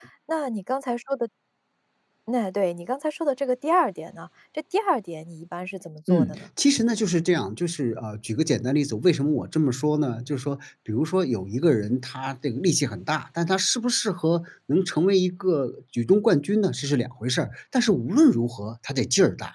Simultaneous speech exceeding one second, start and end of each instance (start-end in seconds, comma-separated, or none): none